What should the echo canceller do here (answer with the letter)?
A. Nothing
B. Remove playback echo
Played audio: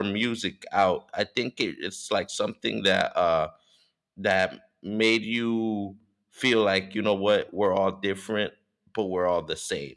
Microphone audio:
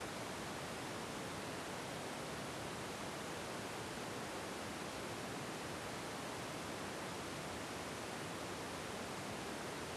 A